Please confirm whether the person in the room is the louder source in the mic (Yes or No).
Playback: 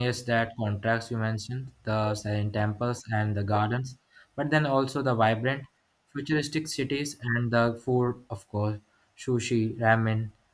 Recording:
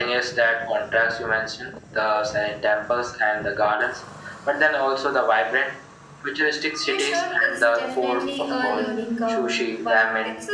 No